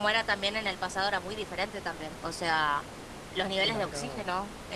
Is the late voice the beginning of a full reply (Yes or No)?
No